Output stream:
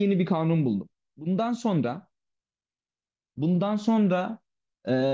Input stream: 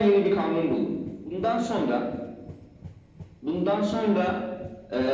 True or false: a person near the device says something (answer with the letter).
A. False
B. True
A